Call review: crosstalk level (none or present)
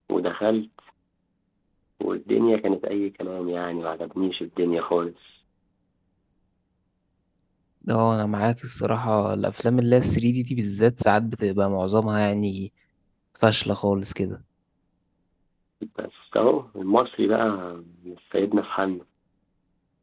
none